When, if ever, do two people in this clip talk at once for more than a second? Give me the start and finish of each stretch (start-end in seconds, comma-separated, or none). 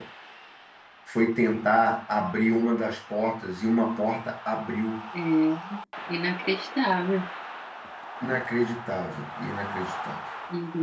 none